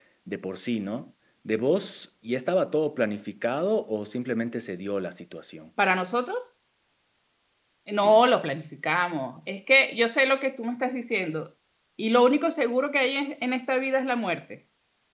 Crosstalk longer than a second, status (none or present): none